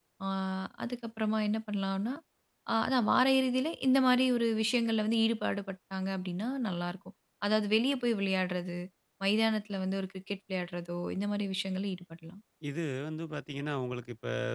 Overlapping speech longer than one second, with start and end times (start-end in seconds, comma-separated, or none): none